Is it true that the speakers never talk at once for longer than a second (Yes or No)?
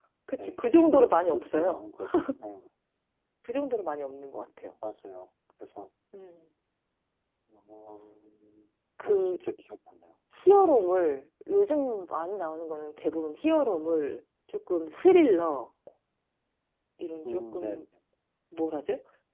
No